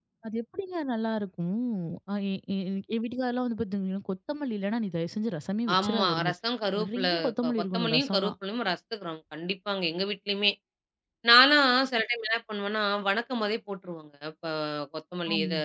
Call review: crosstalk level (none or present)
present